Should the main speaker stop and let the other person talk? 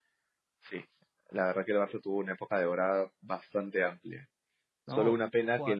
No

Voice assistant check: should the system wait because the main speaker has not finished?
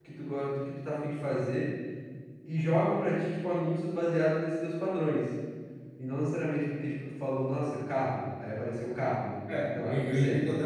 No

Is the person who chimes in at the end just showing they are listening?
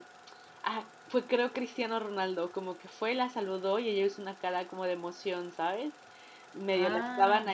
Yes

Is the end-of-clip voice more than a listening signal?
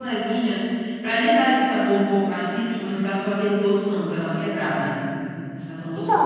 Yes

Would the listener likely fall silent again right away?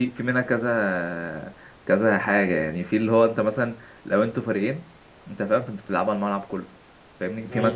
Yes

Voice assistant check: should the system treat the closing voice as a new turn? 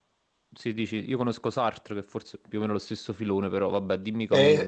Yes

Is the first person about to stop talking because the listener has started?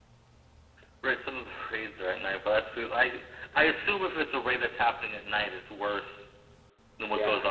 No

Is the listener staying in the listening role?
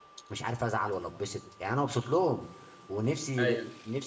Yes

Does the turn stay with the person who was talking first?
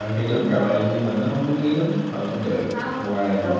No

